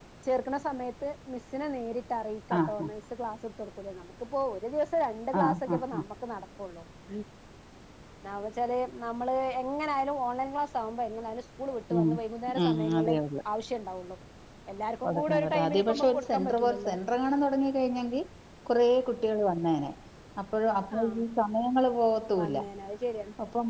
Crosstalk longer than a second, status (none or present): present